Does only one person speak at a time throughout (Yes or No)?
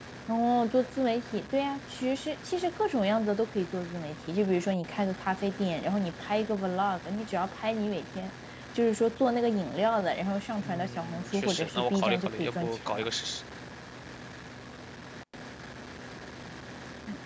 No